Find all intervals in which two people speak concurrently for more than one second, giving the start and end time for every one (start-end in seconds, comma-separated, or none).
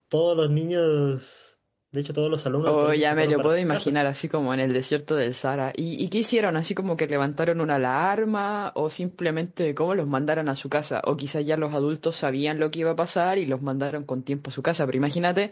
2.7-3.9